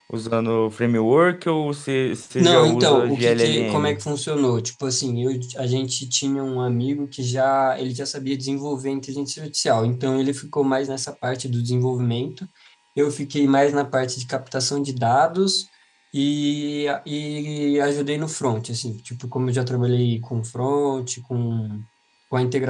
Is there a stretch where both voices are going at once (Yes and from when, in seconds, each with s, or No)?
Yes, from 2.4 s